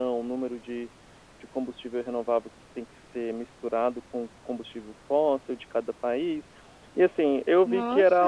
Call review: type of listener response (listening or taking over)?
taking over